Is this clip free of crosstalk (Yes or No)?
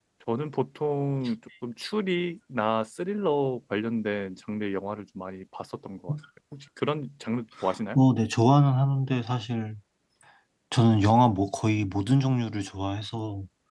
Yes